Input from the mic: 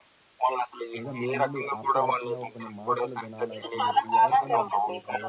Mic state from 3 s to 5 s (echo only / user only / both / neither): both